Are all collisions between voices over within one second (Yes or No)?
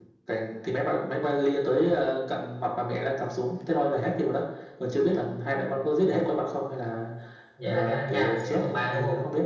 No